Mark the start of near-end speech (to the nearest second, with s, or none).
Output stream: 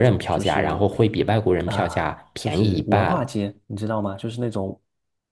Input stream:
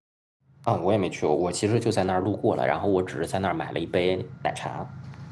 1 s